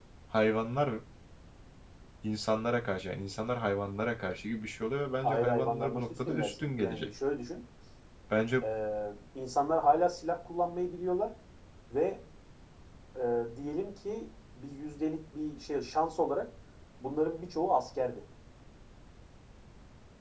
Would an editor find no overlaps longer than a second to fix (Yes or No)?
No